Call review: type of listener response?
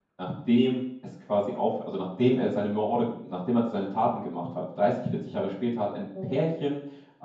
listening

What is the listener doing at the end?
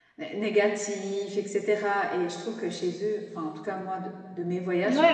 taking over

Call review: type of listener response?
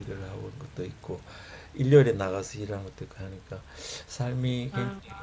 listening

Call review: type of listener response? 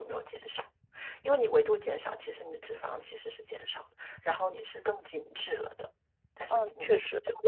taking over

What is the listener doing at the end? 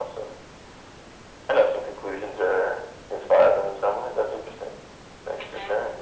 taking over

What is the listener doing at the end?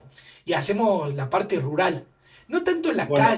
listening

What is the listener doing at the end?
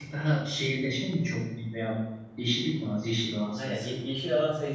taking over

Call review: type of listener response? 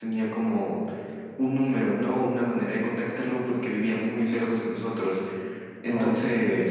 listening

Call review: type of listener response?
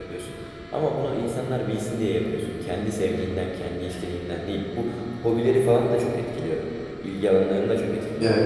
taking over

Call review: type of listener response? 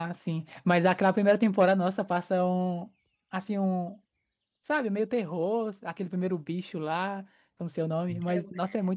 listening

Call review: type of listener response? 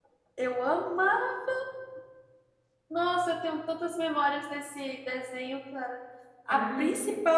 listening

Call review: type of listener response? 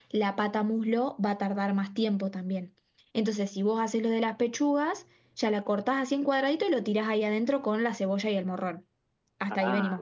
taking over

